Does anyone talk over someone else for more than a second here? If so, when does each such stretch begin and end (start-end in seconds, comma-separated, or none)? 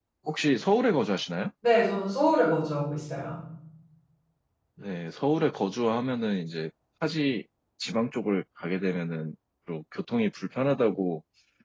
none